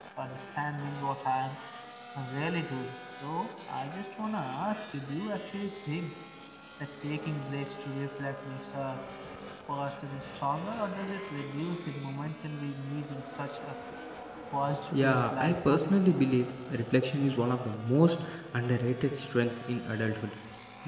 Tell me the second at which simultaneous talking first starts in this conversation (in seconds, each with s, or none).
15.0 s